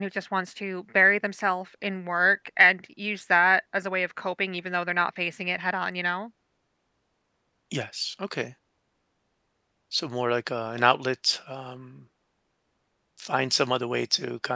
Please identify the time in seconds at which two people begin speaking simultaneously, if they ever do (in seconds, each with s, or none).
none